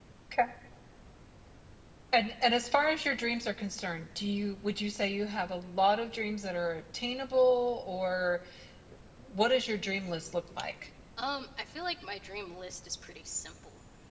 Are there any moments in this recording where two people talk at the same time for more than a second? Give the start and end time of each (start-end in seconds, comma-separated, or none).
none